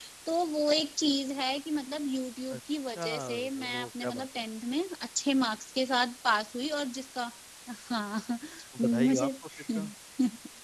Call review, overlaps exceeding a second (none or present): present